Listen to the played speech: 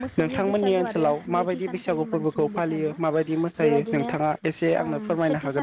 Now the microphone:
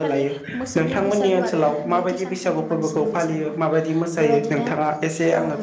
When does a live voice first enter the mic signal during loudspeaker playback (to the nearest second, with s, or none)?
none